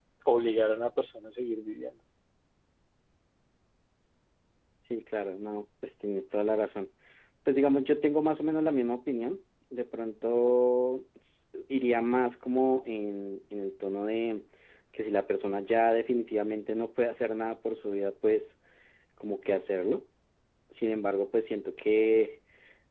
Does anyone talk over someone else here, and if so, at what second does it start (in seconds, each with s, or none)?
none